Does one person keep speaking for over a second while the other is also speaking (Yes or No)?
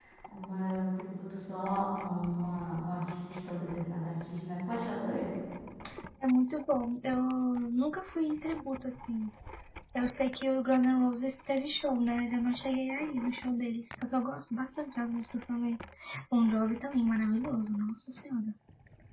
No